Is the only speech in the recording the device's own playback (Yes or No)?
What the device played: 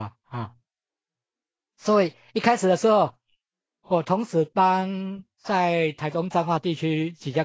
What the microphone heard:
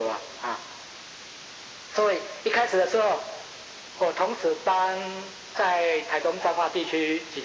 Yes